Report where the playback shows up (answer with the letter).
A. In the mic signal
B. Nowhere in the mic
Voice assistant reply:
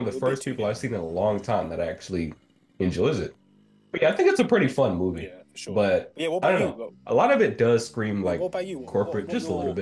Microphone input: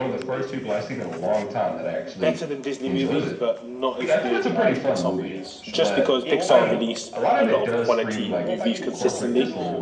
A